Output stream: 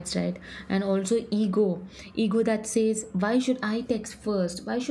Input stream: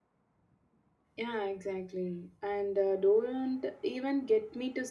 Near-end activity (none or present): present